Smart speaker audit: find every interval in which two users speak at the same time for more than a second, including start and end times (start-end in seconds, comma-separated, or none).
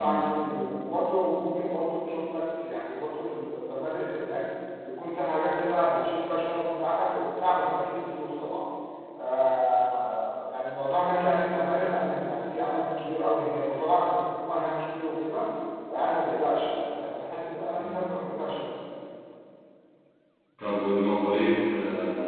none